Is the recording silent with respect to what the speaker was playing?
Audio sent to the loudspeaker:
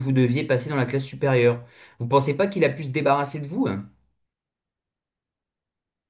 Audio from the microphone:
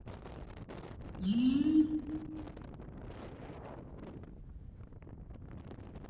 Yes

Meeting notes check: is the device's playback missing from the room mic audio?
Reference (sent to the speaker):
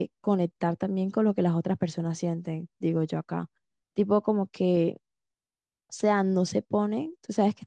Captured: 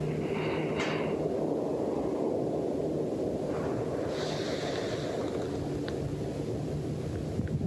Yes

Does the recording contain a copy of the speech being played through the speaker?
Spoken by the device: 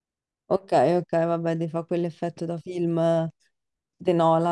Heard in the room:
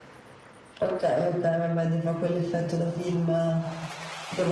Yes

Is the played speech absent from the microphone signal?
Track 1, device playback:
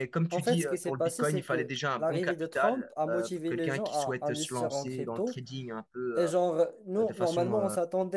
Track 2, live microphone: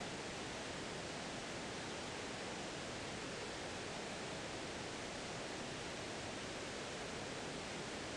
Yes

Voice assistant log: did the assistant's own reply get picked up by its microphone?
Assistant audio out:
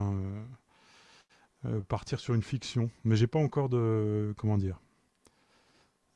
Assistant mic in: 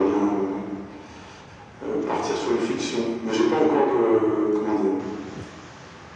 Yes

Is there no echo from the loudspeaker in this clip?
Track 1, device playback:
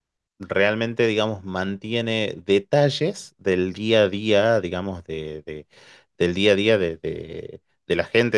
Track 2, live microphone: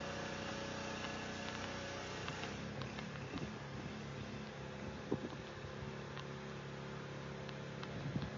Yes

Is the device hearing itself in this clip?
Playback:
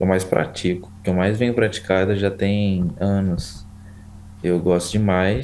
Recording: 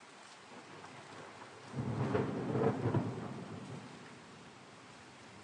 No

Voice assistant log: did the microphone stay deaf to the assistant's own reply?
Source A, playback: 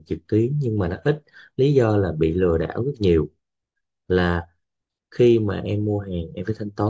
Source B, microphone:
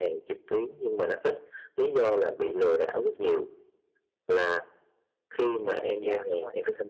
No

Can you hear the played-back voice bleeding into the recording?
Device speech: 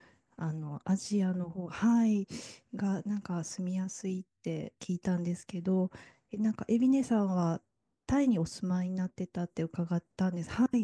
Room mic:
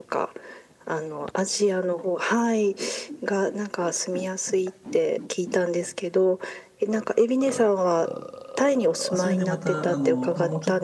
Yes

